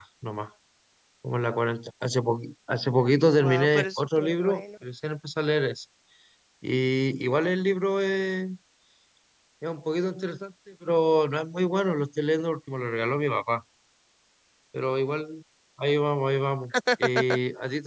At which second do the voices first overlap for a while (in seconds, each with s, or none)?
3.3 s